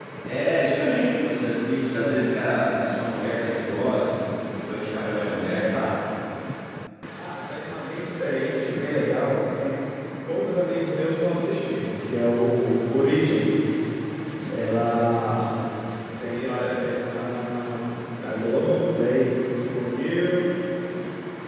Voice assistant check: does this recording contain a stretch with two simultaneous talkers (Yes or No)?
No